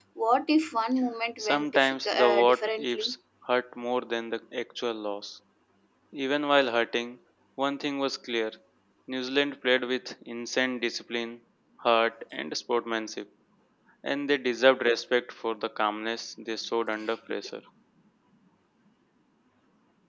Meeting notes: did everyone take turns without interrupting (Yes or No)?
No